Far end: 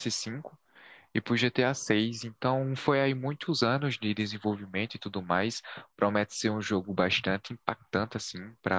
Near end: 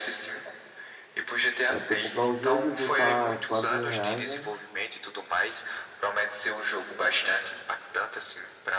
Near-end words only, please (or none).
Vai ter que comprar o jogo e o jogo tá quase mil reais, né?